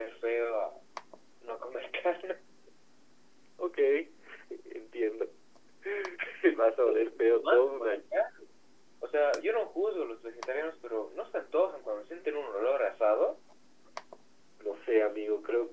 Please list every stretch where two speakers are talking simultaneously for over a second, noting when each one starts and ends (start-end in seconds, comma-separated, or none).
6.8-8.0